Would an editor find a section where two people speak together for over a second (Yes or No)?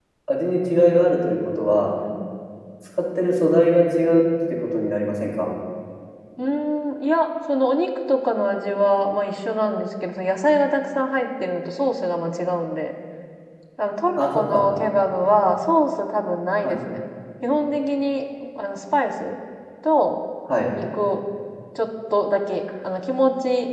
No